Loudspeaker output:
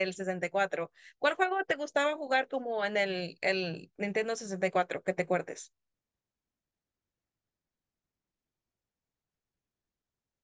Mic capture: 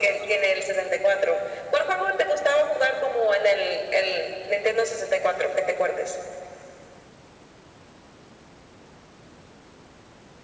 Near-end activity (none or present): none